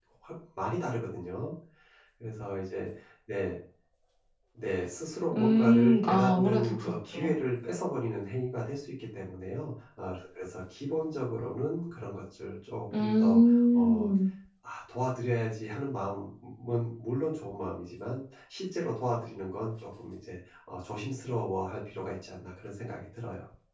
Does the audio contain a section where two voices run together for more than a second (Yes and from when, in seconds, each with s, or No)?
Yes, from 5.4 s